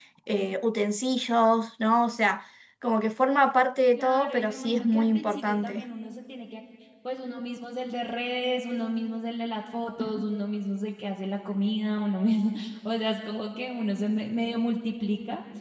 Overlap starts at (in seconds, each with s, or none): 4.0 s